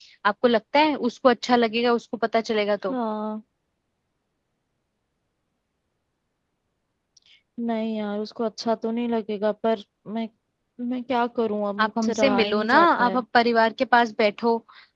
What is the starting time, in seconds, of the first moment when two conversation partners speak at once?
11.8 s

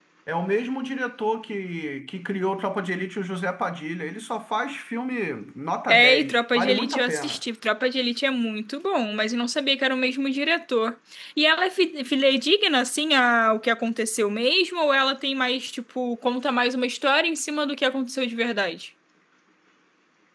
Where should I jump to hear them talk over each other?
5.9 s

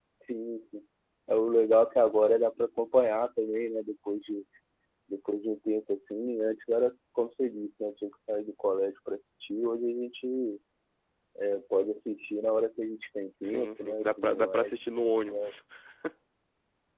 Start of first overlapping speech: 13.4 s

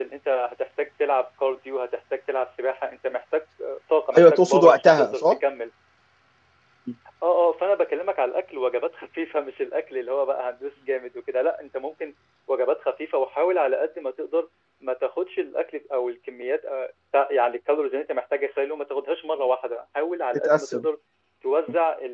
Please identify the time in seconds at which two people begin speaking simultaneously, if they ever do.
4.2 s

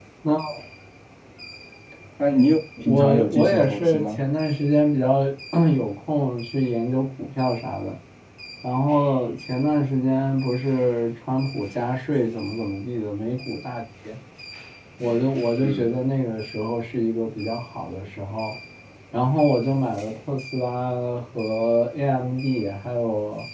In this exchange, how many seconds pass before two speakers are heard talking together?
2.9 s

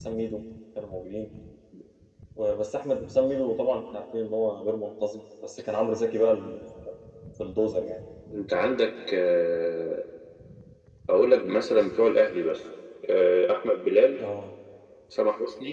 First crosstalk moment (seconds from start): none

